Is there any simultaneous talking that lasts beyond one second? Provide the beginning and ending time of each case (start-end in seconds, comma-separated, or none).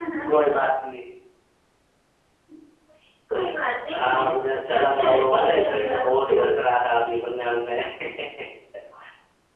3.9-6.5